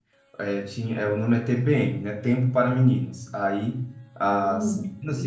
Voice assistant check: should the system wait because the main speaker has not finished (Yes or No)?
Yes